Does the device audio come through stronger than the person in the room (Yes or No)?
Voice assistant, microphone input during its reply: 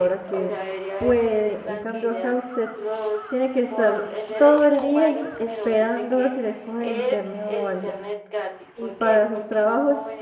No